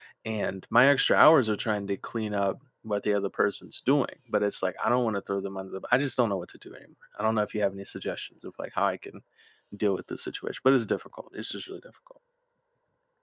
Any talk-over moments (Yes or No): No